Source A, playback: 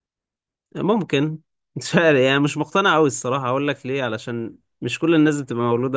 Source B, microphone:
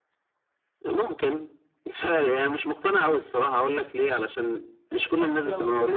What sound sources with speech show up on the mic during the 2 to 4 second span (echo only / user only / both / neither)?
echo only